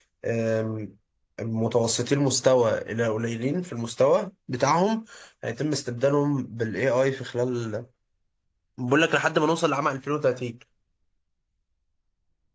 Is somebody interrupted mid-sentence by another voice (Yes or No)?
No